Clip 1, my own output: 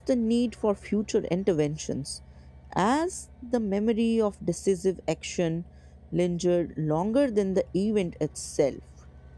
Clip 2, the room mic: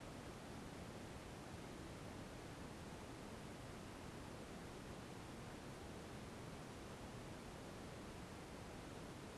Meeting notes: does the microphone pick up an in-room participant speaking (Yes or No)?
No